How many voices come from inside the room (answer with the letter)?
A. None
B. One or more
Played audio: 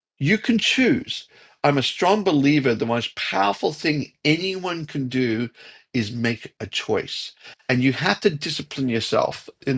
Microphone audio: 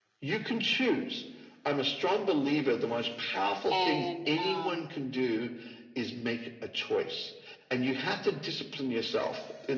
B